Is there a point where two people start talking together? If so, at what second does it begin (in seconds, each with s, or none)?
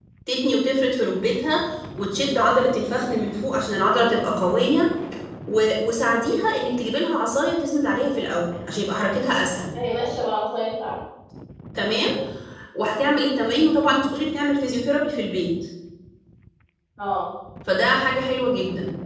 none